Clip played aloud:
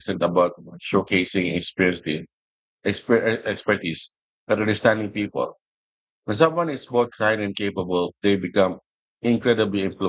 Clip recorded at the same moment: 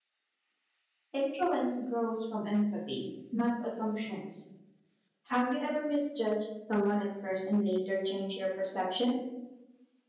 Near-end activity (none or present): present